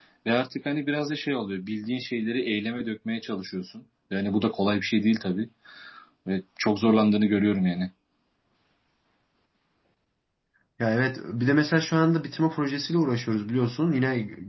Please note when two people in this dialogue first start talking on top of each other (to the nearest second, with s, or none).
none